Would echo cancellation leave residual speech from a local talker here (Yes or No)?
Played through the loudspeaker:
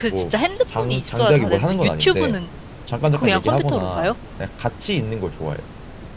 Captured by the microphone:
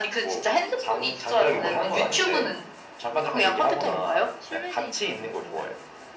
Yes